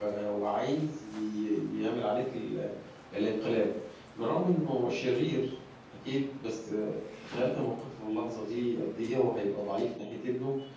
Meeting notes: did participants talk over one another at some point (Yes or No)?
No